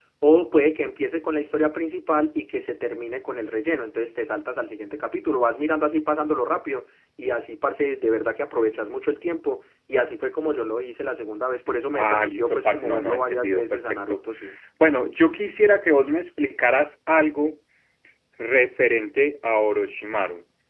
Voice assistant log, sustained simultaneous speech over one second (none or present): present